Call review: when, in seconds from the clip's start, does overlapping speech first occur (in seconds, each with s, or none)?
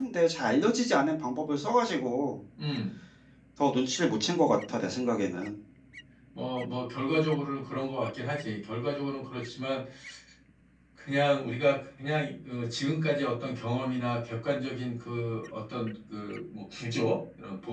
none